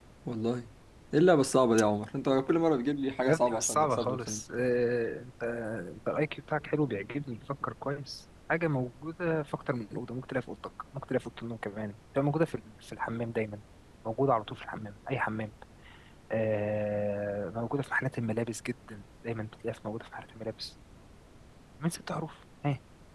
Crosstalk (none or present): present